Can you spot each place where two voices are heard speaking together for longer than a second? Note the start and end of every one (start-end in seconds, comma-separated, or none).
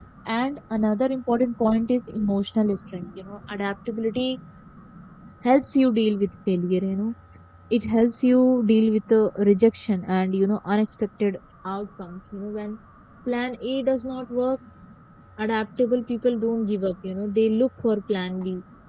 none